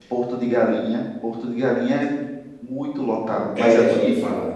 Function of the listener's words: taking over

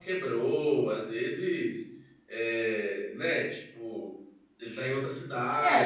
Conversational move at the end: taking over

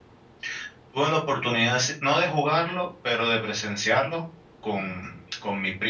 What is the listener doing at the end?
listening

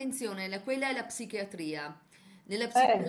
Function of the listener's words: listening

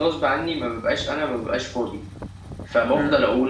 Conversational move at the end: listening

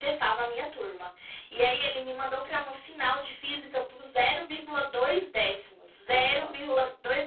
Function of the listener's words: listening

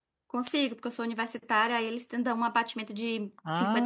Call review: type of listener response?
taking over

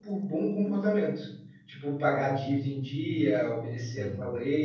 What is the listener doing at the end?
listening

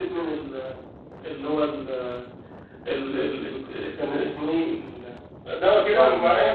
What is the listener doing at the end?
taking over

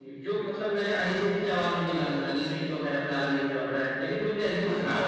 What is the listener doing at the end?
listening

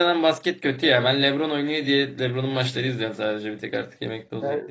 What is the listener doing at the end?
taking over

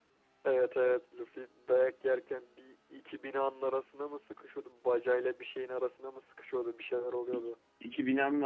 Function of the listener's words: taking over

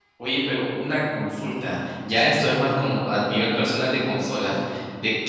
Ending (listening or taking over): listening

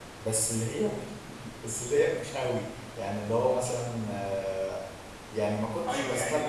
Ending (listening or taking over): taking over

